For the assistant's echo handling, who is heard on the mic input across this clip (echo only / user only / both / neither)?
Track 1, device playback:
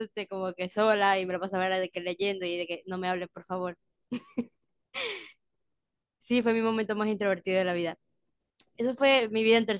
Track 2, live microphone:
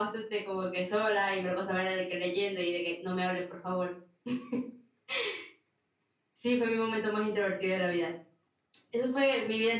echo only